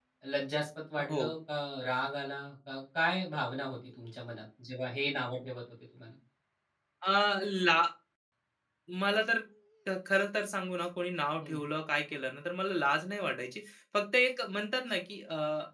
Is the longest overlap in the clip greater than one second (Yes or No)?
No